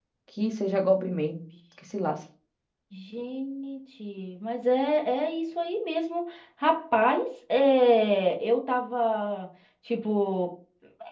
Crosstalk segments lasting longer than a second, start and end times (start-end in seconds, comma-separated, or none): none